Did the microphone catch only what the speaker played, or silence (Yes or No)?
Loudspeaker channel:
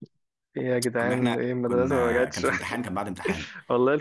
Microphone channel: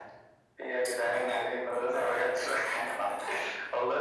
Yes